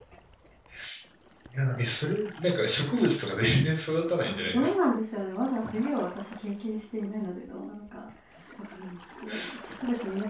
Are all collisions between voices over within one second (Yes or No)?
Yes